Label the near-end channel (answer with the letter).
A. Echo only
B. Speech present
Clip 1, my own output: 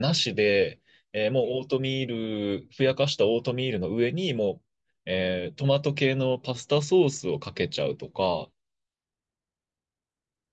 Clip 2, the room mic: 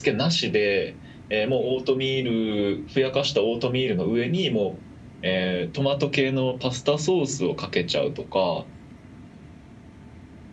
A